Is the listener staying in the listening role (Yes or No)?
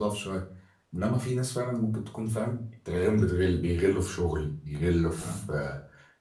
Yes